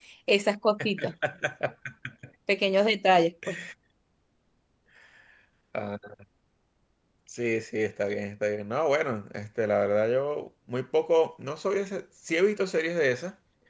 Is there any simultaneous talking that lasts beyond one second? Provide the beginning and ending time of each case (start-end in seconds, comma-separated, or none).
none